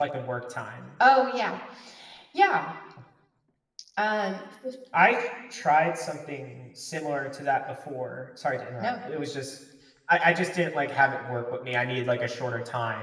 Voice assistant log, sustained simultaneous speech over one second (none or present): none